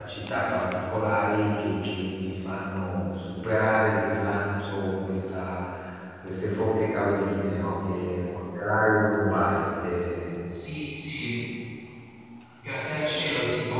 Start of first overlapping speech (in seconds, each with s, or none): none